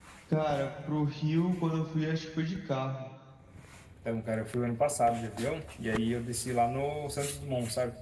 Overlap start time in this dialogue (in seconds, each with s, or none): none